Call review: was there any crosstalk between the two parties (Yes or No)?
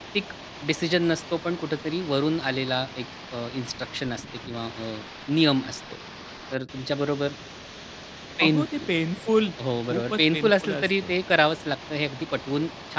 Yes